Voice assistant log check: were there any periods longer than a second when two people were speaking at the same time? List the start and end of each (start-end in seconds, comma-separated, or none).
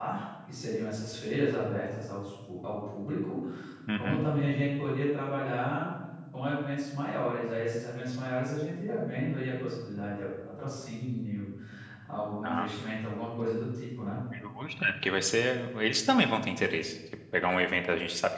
none